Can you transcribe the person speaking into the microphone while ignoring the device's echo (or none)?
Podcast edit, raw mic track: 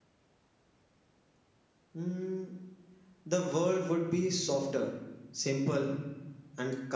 none